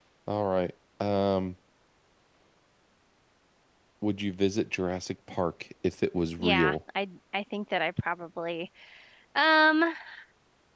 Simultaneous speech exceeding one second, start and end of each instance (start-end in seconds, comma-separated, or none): none